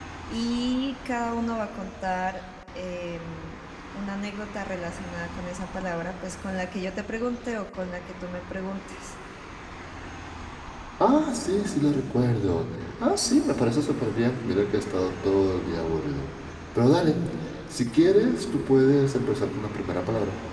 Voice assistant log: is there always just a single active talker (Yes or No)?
Yes